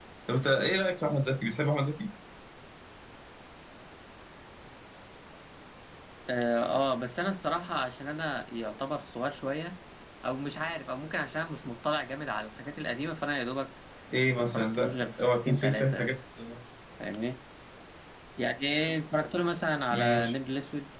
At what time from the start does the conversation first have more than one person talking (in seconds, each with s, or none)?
14.4 s